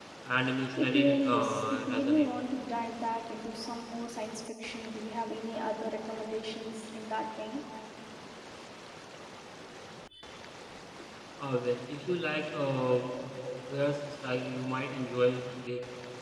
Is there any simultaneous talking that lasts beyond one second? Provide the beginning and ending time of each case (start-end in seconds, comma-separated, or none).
0.8-2.3